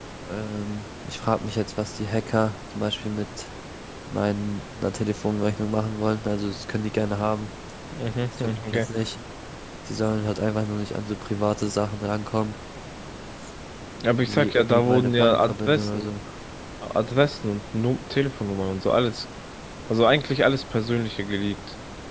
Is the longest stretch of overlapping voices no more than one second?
No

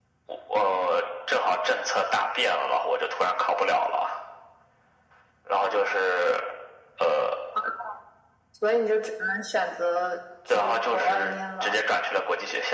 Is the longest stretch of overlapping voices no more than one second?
No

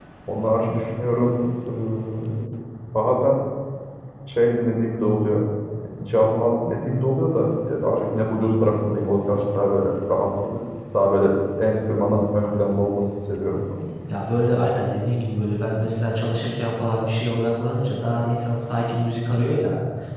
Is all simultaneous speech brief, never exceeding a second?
Yes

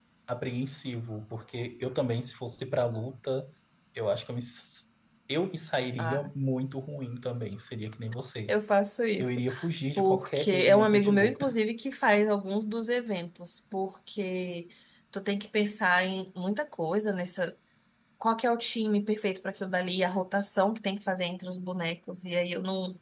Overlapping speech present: Yes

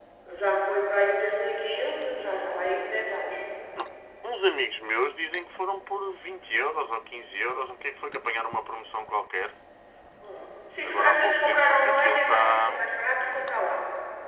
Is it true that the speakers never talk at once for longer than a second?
No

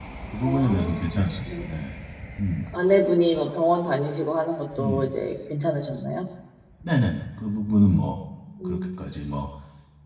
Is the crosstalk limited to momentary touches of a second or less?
No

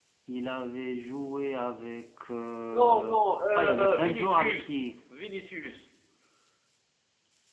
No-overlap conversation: No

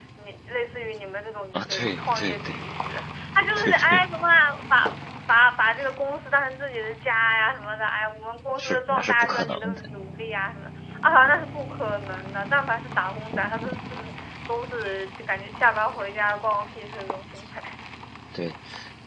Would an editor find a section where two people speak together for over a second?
Yes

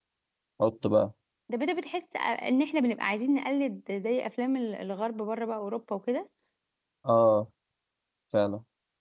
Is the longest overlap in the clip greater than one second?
No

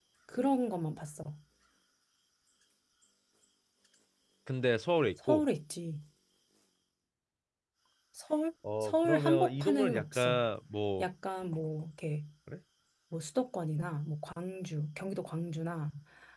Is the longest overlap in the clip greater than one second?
Yes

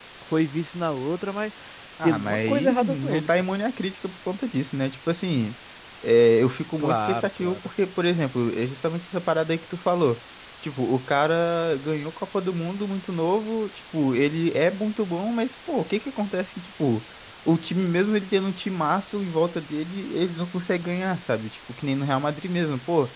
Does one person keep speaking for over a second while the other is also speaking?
Yes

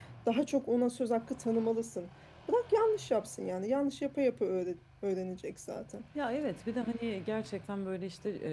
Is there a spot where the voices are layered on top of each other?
No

